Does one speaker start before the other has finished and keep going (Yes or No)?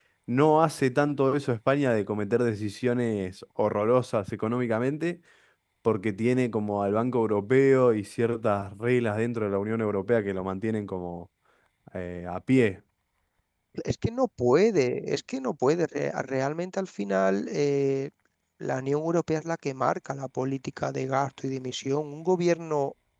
No